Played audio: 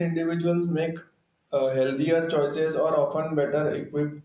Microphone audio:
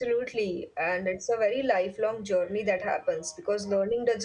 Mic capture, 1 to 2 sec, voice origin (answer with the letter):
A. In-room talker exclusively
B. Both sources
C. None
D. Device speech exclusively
A